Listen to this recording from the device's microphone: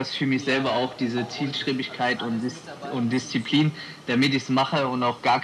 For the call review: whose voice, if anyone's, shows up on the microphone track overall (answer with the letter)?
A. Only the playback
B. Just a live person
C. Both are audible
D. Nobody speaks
C